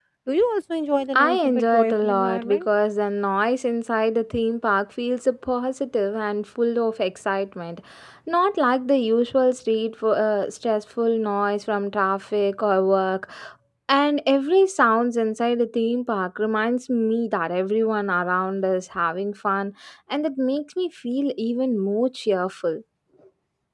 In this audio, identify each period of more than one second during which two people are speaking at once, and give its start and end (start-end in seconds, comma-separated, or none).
1.1-2.7